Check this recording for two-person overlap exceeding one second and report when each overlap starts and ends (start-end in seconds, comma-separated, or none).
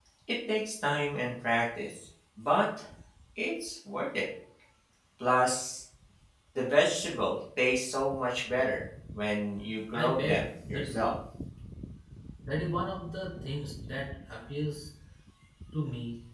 9.9-11.1